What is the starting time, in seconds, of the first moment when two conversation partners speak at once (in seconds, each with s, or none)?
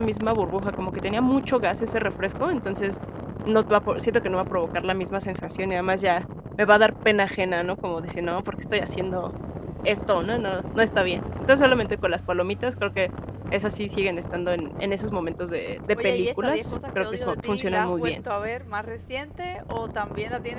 15.9 s